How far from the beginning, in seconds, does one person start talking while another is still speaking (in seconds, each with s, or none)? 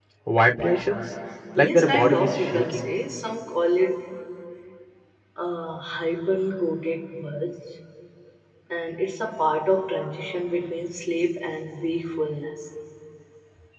1.6 s